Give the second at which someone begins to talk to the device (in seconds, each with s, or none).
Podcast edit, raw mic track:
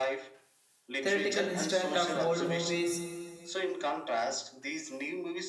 1.0 s